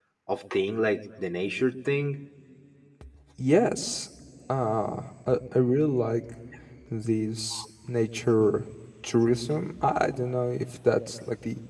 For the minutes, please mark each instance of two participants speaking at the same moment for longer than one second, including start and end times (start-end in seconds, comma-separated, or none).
none